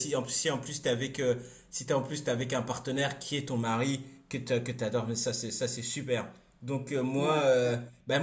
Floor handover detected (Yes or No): No